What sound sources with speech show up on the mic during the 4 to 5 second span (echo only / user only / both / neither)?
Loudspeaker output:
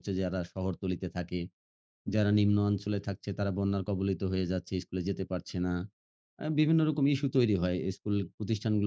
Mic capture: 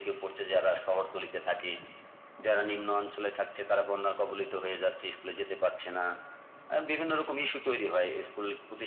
echo only